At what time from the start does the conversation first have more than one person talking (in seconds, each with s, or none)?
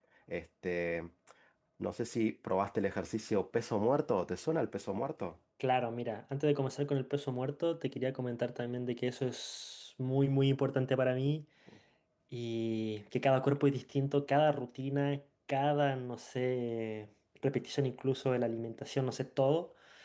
none